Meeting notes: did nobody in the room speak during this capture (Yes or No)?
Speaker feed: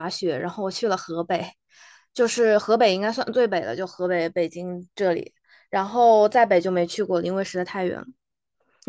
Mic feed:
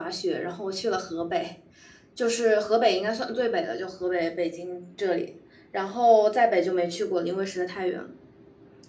Yes